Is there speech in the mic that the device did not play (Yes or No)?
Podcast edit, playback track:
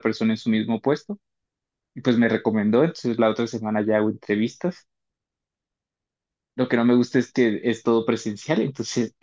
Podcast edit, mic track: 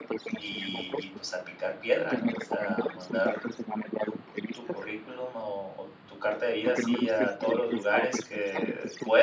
Yes